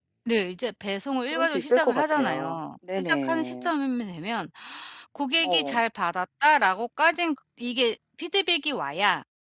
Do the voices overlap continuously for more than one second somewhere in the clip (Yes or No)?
Yes